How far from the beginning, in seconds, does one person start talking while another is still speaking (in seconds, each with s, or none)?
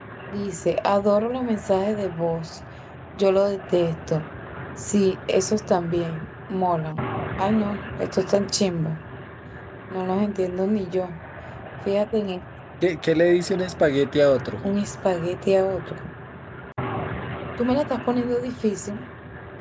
none